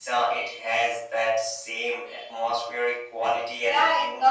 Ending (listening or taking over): taking over